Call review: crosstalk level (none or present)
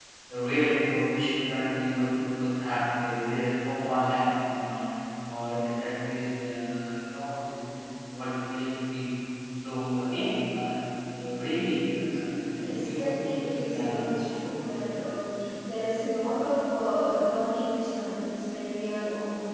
present